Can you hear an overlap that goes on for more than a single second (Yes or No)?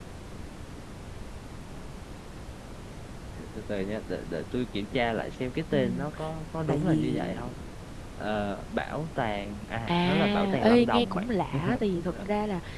Yes